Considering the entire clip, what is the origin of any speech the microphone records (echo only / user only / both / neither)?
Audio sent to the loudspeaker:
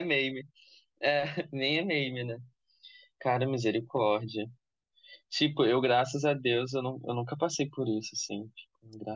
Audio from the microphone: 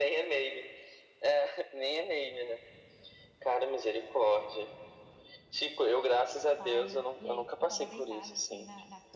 both